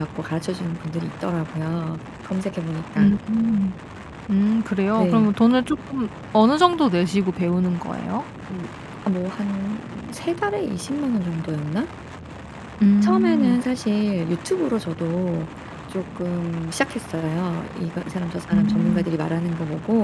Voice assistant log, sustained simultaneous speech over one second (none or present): none